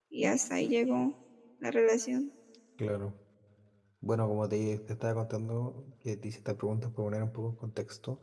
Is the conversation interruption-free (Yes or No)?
Yes